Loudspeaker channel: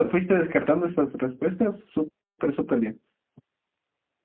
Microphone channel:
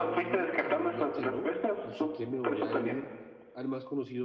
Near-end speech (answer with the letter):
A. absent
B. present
B